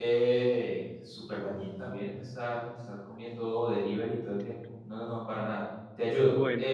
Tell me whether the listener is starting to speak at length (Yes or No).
Yes